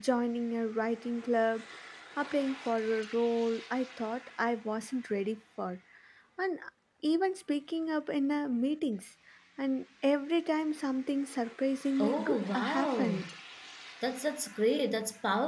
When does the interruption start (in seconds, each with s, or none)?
12.0 s